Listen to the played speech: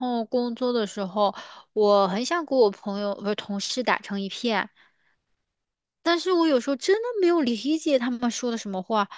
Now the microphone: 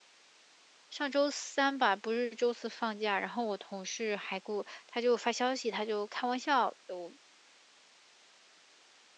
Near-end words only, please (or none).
上周三吧，不是周四放假，然后我同事还给我，他就发消息，他就开玩笑，我，